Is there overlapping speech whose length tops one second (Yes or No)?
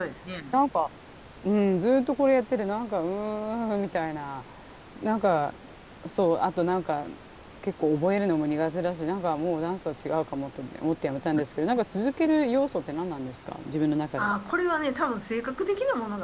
No